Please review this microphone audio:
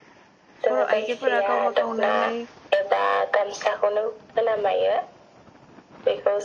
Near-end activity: present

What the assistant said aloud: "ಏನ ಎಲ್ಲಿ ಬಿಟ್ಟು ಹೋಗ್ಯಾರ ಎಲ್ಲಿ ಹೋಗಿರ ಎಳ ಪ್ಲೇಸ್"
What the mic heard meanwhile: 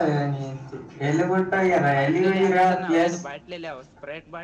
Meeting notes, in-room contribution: present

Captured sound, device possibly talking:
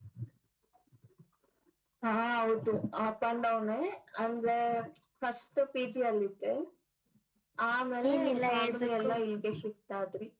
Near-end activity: present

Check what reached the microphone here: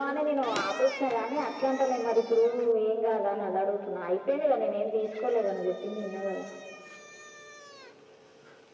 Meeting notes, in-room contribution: none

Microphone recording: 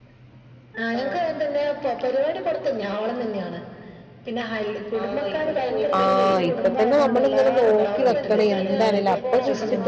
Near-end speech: present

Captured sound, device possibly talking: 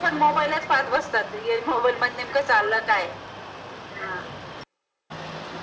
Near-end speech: none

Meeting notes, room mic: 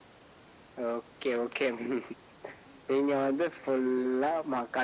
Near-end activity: none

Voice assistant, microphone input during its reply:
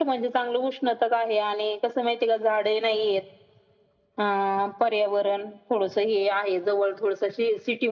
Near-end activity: none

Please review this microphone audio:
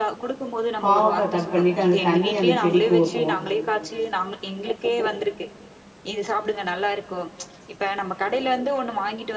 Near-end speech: present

